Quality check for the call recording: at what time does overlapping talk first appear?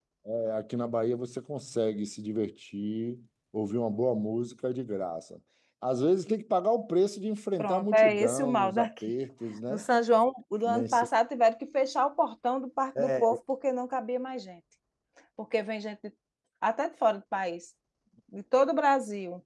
7.6 s

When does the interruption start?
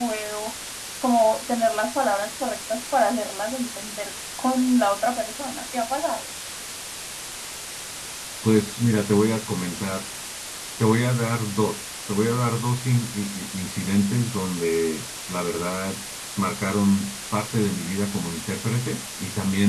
none

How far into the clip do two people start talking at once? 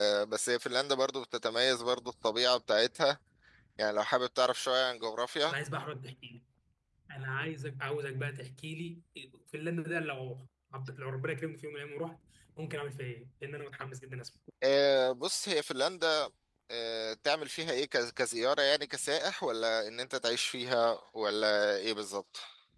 none

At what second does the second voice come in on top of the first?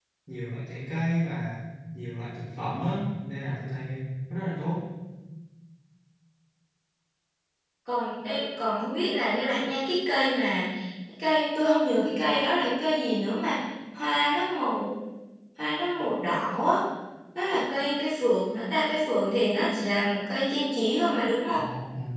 none

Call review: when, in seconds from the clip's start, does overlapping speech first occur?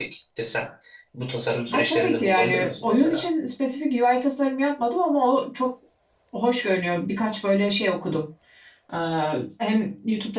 1.7 s

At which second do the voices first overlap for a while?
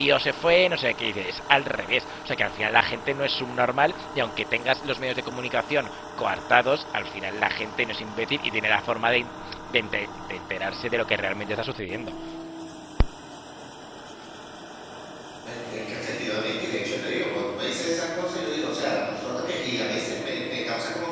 none

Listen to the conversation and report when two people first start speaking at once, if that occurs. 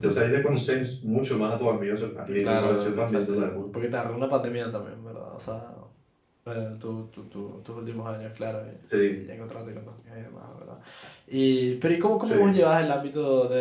2.3 s

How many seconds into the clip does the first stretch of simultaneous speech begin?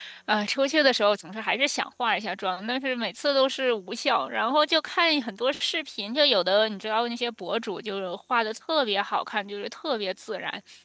none

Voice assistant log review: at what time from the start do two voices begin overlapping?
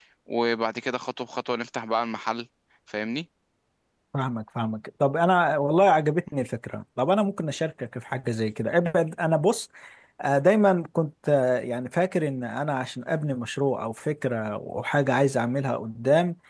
none

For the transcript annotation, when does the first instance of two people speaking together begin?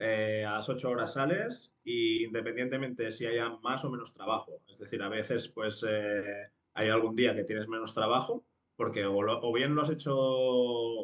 none

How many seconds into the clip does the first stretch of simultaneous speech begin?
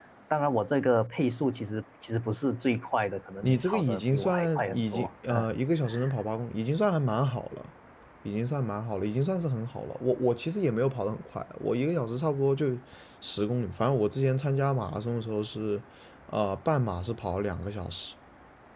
3.4 s

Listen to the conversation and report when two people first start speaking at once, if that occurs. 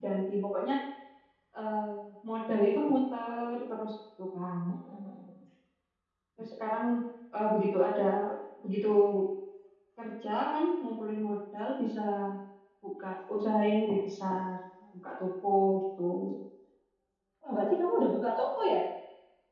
none

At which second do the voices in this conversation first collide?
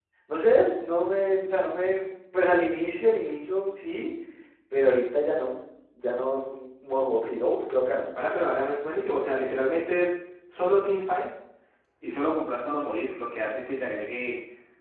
none

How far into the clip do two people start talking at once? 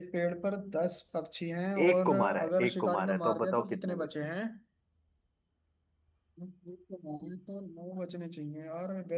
1.8 s

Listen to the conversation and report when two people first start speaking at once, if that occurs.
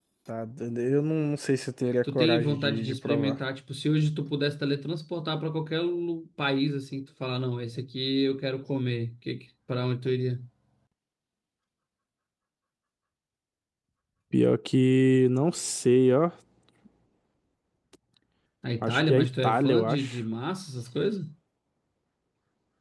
2.0 s

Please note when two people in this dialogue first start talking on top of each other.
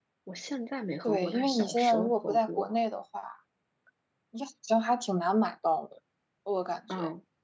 1.0 s

